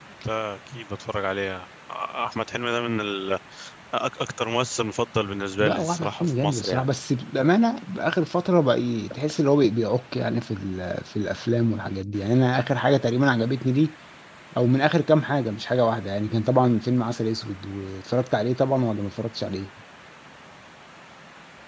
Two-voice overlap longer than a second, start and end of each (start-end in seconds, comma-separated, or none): 5.6-6.9